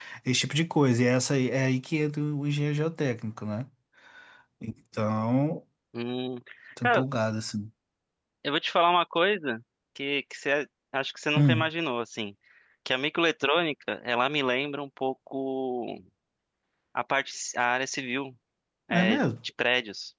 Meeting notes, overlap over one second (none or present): none